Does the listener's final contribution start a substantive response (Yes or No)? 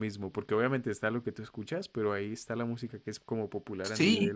Yes